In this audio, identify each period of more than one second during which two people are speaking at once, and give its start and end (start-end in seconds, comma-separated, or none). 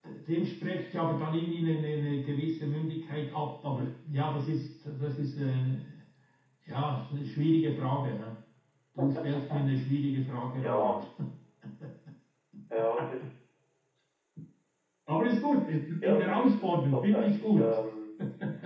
16.0-17.8